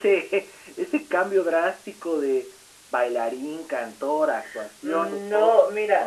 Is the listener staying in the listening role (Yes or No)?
No